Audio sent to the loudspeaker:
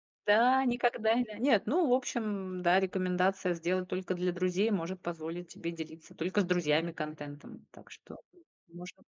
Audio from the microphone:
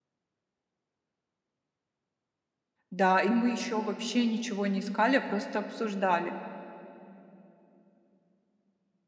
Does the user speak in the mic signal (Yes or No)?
Yes